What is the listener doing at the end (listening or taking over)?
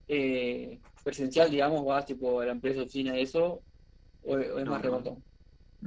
taking over